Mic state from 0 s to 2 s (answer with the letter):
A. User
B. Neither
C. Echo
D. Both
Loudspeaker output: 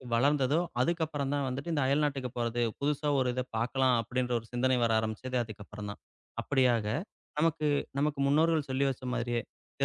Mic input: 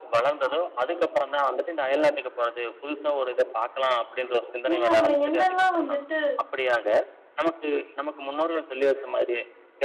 C